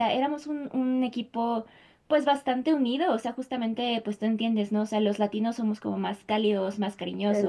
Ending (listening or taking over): listening